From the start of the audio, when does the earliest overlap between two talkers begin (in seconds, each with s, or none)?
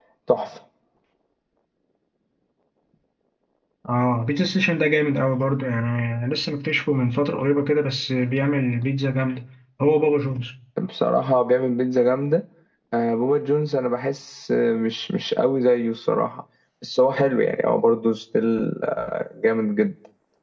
none